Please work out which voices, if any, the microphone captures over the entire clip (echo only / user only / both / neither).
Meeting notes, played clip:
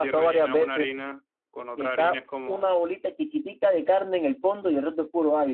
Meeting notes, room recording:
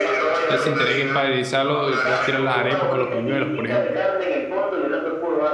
both